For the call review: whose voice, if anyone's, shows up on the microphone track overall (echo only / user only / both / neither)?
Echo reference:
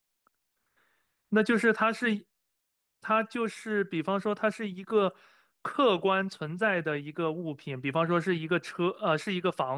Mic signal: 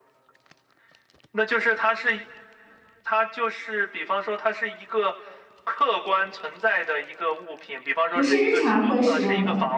both